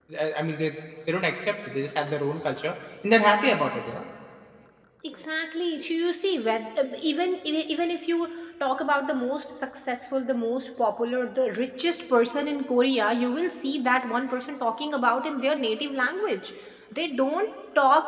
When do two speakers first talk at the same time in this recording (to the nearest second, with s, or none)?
none